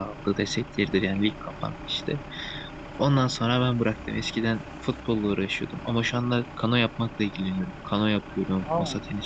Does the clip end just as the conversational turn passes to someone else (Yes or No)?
No